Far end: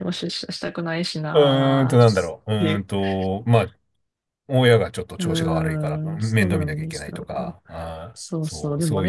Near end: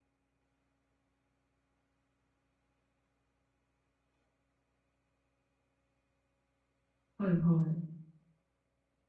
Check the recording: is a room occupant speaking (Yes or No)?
Yes